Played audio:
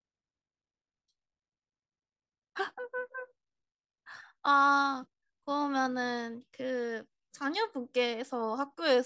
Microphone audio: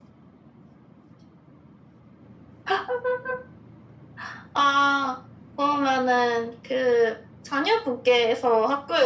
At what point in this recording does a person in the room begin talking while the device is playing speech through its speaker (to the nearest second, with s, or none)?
none